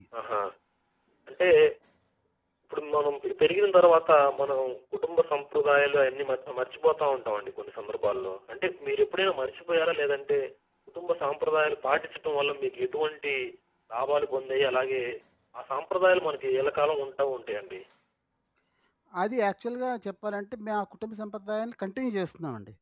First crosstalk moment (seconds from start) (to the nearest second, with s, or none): none